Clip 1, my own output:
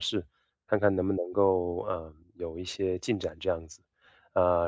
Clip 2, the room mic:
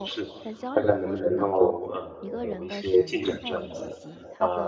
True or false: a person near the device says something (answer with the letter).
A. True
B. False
A